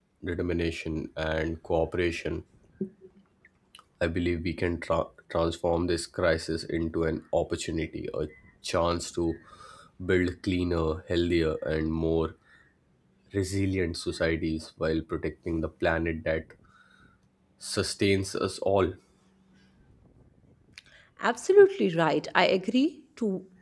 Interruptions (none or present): none